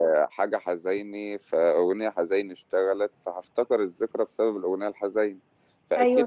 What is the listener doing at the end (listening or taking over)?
listening